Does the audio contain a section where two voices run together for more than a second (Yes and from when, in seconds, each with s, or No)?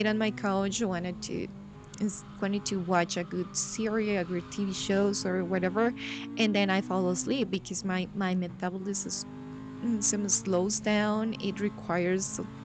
No